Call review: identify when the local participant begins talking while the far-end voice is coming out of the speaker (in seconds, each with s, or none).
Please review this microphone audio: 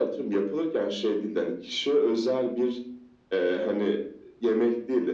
none